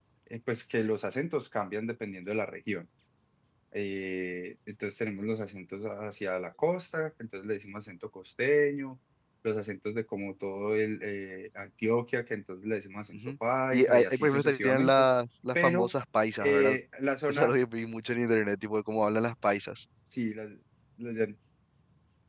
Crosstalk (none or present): present